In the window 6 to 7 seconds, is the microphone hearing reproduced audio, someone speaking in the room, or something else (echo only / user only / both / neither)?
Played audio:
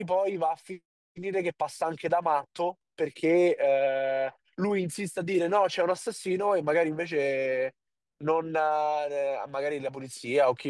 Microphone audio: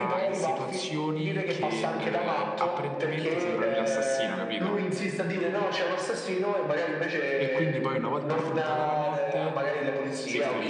echo only